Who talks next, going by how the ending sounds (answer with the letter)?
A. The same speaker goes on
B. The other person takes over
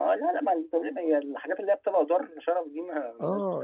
B